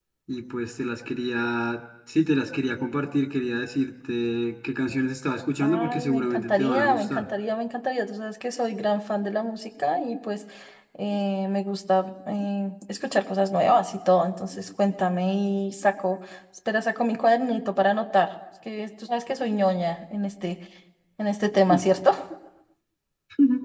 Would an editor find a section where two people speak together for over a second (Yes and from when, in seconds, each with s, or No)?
Yes, from 5.6 s